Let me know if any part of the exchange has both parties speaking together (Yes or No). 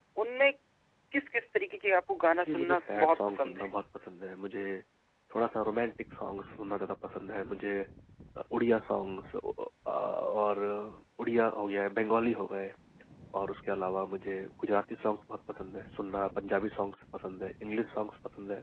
Yes